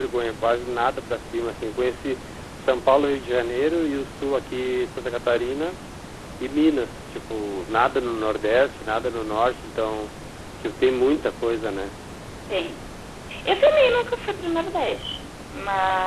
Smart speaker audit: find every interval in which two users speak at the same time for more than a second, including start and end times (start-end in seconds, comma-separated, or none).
none